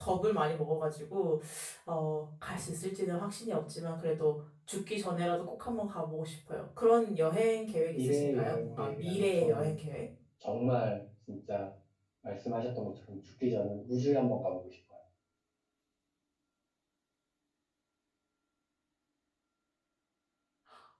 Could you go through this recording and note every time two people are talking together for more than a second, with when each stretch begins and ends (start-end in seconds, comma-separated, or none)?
7.9-9.8